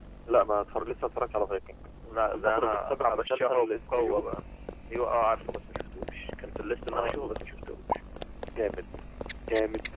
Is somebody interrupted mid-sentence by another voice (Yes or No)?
Yes